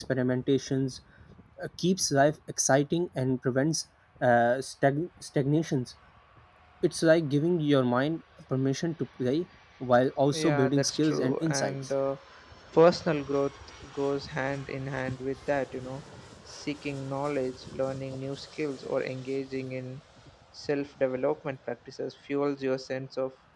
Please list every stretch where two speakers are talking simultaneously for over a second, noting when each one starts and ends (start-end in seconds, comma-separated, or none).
10.3-11.9